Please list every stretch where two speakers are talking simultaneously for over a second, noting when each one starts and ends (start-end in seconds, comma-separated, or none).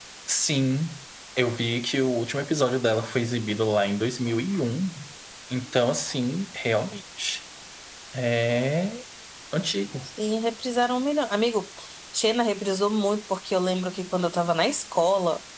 none